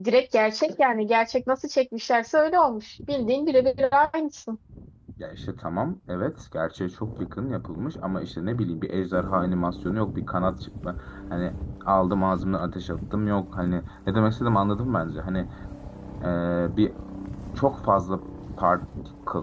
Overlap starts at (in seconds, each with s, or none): none